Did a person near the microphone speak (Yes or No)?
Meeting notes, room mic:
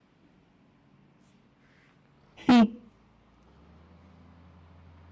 Yes